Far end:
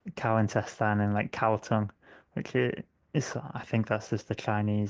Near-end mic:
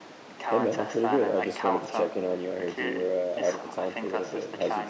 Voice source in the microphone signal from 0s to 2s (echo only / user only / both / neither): both